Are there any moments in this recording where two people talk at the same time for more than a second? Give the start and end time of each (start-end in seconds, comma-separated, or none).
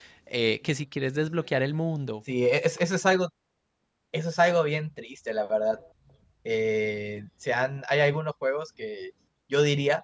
none